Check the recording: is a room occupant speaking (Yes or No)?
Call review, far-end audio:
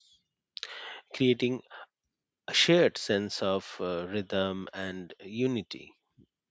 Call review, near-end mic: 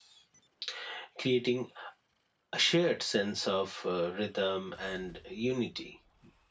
No